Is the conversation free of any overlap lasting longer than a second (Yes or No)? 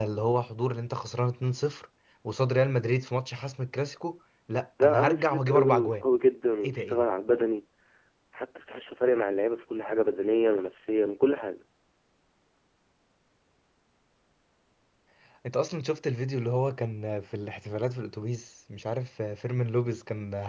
No